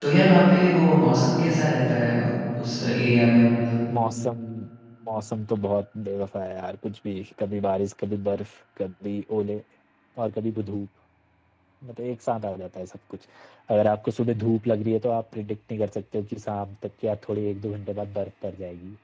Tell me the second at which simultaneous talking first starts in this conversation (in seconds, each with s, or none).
none